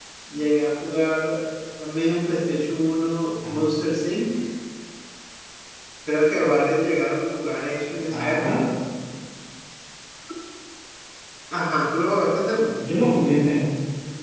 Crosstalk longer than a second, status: none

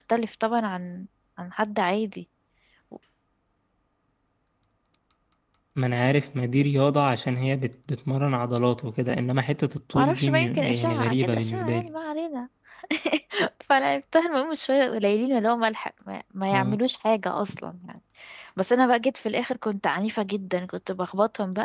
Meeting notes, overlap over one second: present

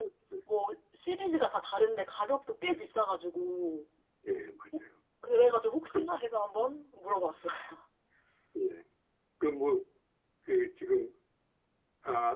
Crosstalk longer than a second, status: none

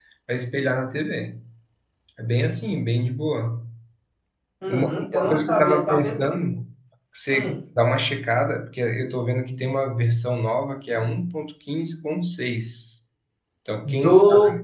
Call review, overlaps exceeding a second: present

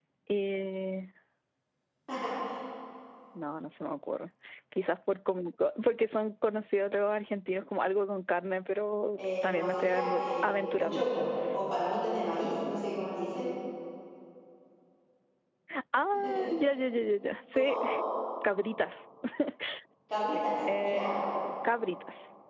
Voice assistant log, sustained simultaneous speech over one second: present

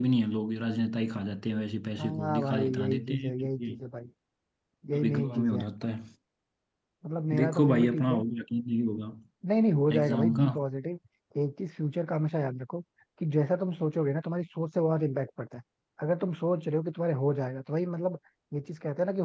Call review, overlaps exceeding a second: present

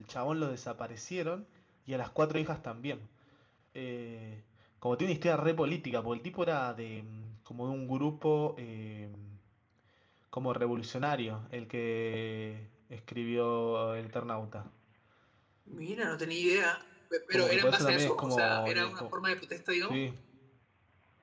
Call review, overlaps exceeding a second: present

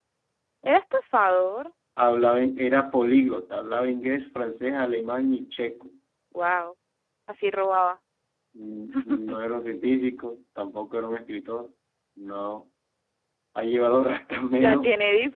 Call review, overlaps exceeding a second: none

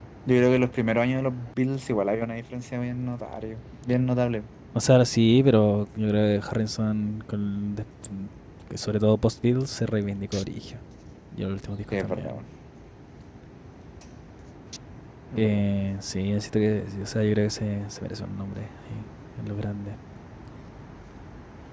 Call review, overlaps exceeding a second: none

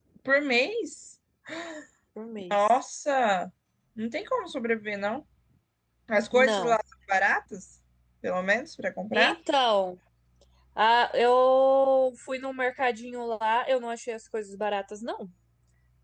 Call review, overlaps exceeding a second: none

